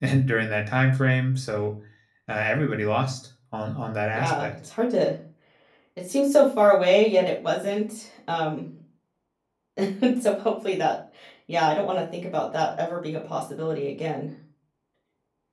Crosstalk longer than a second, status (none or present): none